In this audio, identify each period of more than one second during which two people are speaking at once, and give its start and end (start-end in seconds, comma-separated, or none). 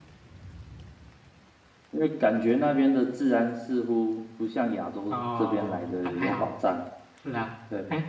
5.1-6.5